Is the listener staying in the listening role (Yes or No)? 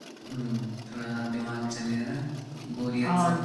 No